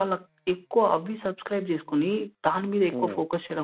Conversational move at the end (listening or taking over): listening